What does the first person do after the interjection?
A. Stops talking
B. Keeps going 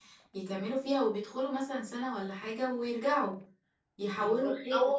A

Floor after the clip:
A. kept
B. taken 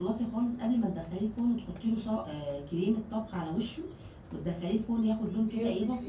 B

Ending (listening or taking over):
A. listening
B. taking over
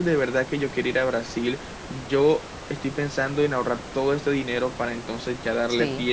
B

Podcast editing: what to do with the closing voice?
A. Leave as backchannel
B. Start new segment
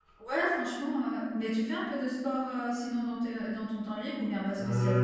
B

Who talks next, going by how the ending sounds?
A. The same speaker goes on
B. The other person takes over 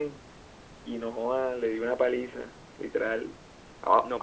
B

